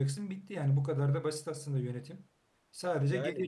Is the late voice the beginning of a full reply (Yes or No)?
No